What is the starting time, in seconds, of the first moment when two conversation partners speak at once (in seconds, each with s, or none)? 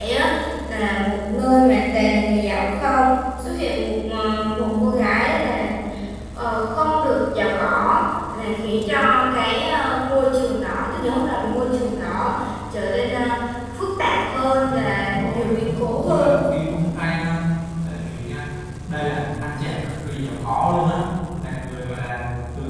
14.7 s